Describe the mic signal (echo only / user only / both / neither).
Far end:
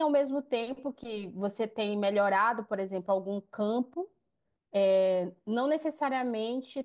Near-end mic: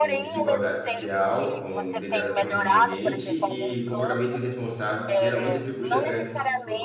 both